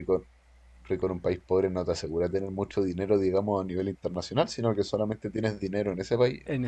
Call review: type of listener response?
taking over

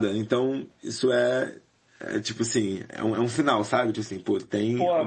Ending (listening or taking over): taking over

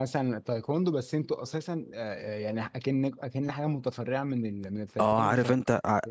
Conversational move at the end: taking over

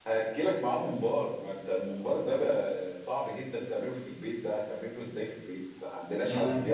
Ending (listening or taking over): taking over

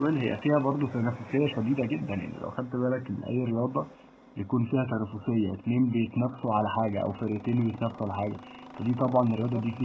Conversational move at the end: taking over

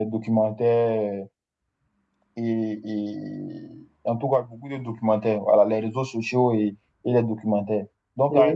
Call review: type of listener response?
listening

